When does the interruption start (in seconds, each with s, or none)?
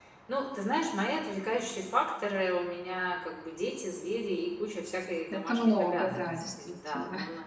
5.3 s